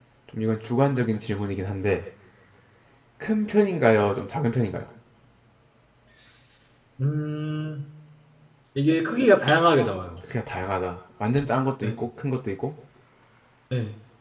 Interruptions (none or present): none